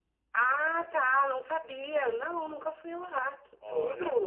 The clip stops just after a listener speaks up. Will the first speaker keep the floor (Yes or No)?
No